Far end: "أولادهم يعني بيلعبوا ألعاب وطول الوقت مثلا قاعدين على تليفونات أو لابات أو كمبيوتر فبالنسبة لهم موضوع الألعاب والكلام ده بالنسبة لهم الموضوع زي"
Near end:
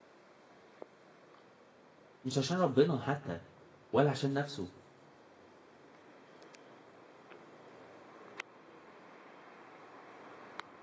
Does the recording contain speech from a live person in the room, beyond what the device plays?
Yes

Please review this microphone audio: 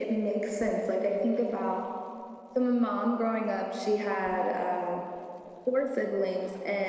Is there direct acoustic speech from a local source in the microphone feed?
No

